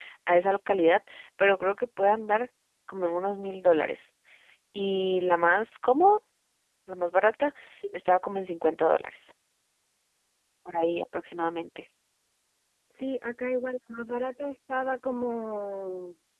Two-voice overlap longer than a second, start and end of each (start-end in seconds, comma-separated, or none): none